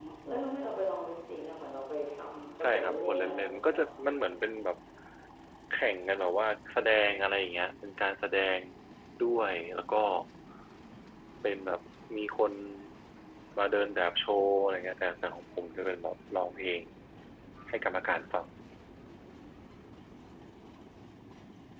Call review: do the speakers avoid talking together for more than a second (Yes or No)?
No